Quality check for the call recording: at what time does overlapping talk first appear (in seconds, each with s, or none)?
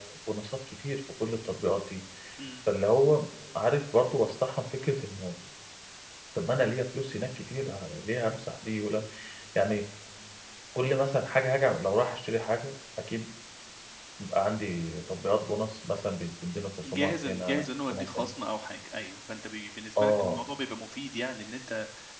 16.8 s